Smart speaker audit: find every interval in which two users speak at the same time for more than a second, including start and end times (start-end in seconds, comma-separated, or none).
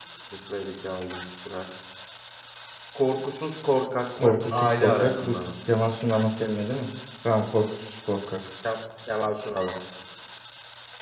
4.2-5.4